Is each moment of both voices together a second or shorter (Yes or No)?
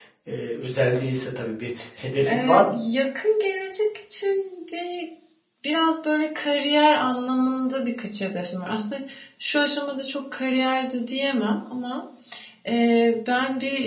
Yes